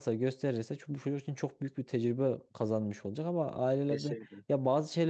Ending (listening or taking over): listening